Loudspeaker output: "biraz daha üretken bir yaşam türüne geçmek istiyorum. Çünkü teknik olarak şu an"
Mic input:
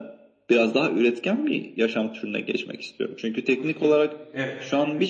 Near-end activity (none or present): present